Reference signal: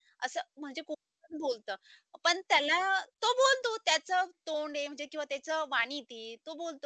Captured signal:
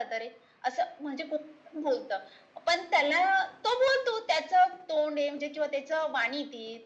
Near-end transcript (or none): none